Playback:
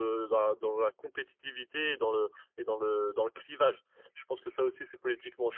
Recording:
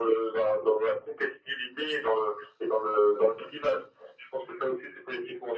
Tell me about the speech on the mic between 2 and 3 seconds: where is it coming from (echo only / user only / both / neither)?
echo only